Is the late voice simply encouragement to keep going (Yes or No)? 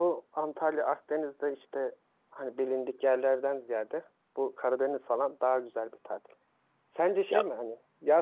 Yes